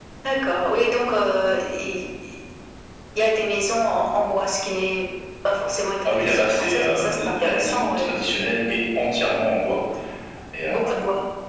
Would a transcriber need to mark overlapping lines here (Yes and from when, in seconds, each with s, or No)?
Yes, from 6.1 s